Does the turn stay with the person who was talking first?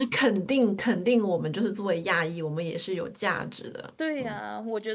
No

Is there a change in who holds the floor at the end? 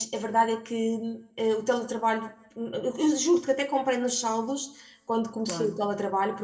No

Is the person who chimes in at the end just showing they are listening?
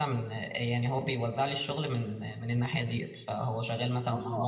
No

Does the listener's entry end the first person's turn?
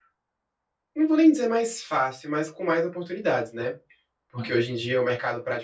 No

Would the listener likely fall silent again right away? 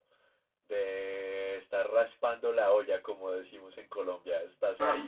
No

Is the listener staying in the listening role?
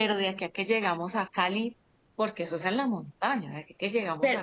No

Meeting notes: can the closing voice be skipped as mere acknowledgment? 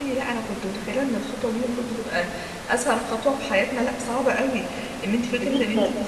Yes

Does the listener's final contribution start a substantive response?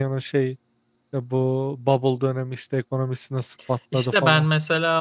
Yes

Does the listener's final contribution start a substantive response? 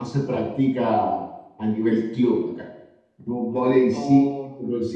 No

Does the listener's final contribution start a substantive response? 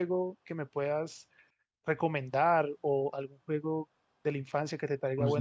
Yes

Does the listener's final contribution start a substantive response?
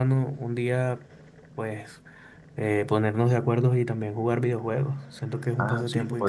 Yes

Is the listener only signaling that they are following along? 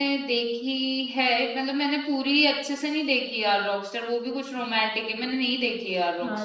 No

